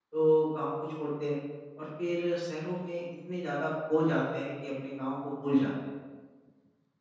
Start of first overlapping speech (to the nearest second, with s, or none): none